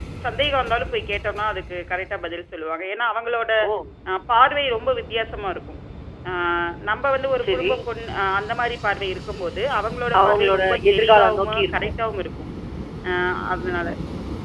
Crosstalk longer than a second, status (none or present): present